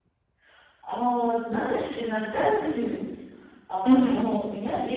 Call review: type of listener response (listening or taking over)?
listening